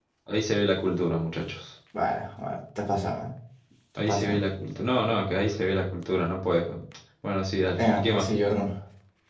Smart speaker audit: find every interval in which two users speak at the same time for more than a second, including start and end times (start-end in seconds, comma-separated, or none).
none